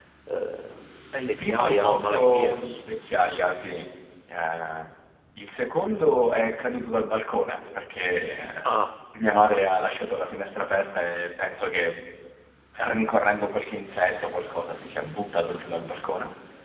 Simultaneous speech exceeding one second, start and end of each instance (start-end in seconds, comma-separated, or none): 1.2-2.6